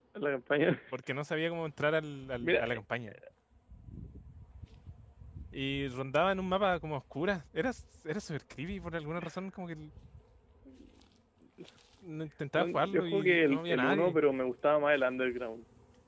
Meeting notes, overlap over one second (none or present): present